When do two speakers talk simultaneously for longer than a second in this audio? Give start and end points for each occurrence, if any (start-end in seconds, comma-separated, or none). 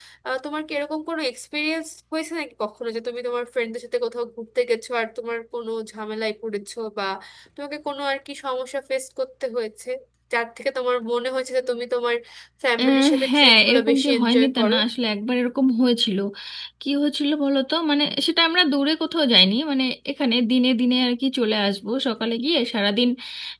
12.8-14.8